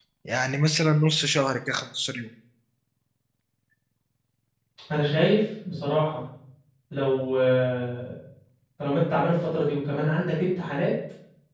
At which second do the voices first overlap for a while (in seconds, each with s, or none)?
none